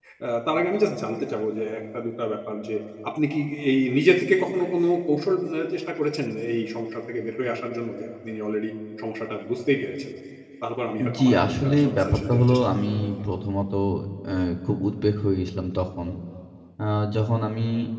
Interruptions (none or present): present